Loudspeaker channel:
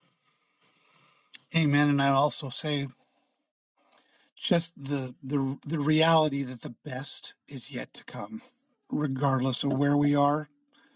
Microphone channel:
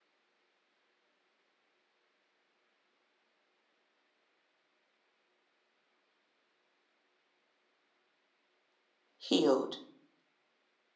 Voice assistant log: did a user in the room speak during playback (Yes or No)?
Yes